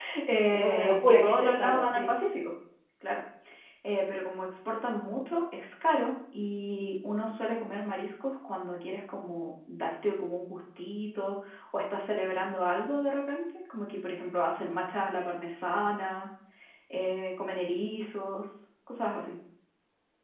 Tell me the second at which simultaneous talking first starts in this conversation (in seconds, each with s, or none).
0.5 s